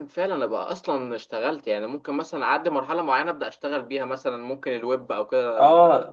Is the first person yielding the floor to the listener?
Yes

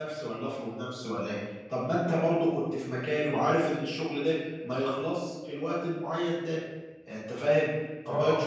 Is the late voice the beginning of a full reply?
No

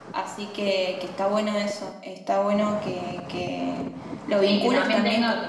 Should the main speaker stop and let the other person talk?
Yes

